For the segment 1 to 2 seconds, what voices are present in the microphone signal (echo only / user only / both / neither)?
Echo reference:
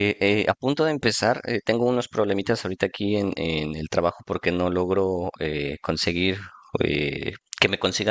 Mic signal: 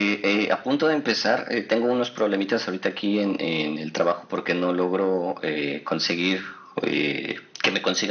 echo only